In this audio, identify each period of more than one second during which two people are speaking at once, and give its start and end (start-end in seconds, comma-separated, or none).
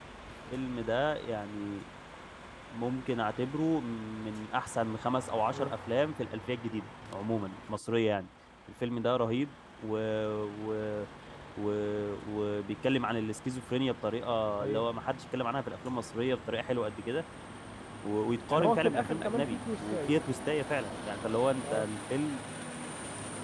18.5-20.1